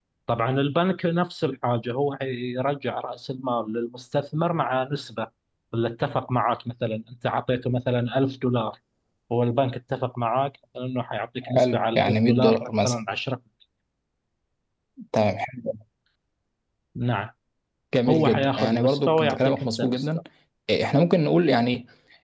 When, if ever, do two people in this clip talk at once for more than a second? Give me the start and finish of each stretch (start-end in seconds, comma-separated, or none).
11.6-13.0, 18.1-20.1